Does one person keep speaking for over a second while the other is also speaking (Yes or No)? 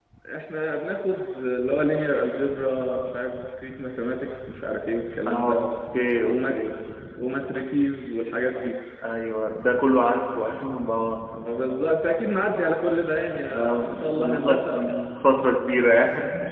Yes